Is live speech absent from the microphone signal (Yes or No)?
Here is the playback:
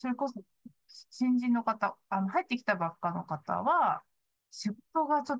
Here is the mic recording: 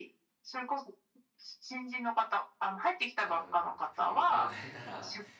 No